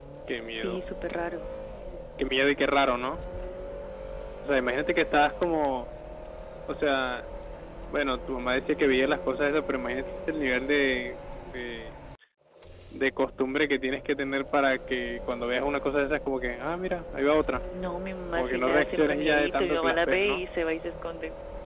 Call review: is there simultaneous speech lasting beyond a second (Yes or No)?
Yes